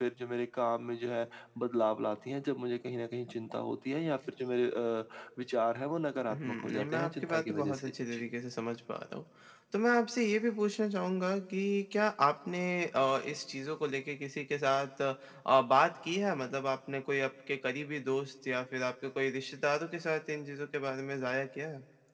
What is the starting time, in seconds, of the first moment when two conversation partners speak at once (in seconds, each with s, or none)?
6.3 s